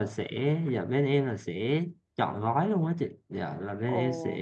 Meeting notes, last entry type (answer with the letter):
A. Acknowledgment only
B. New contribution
A